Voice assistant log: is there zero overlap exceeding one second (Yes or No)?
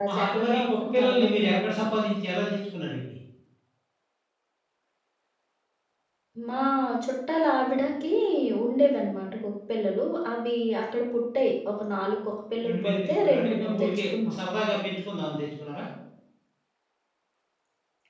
No